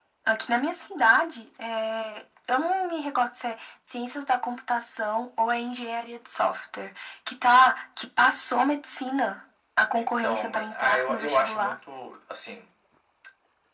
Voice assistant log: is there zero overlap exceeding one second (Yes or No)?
No